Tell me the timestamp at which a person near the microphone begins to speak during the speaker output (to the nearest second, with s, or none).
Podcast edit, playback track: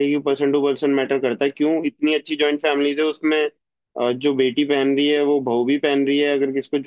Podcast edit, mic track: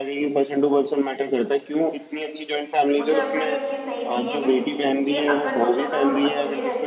3 s